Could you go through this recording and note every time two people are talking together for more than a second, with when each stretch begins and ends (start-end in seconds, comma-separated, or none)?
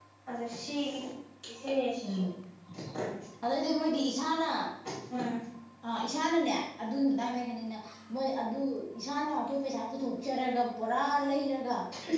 none